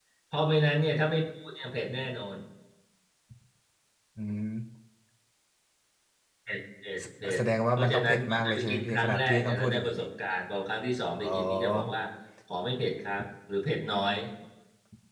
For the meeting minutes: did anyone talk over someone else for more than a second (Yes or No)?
Yes